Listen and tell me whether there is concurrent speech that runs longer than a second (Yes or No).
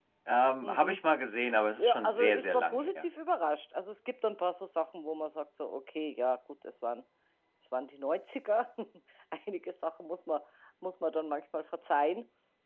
Yes